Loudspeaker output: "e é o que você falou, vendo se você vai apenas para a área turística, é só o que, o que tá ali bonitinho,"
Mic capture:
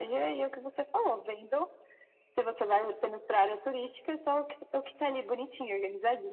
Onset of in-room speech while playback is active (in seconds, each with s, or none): none